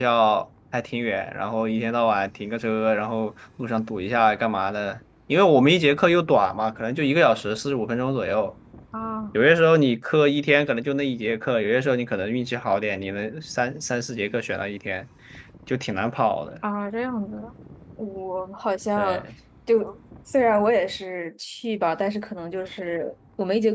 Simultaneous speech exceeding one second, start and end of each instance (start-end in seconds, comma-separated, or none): none